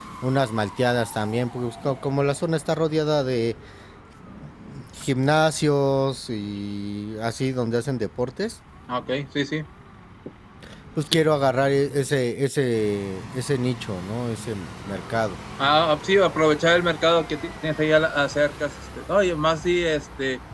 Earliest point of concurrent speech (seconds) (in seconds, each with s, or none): none